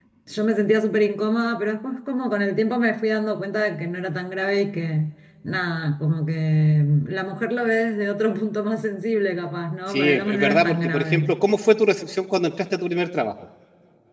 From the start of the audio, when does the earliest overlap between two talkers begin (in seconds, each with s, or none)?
9.9 s